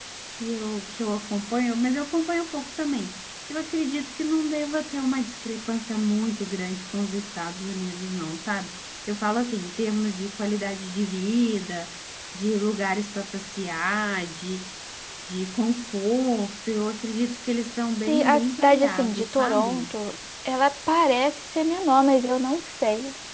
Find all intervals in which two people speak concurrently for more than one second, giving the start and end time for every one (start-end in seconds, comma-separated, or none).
18.1-19.9